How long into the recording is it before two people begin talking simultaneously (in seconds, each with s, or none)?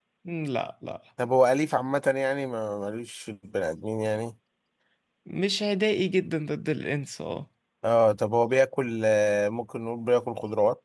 none